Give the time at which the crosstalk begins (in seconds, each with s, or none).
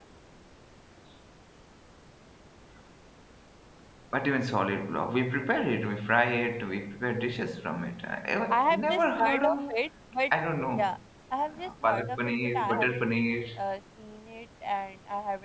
8.5 s